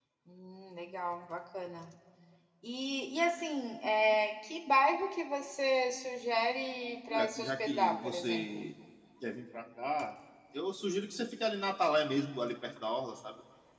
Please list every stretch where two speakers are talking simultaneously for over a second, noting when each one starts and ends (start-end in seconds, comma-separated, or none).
7.1-8.7